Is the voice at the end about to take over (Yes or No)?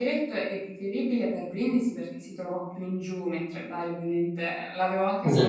Yes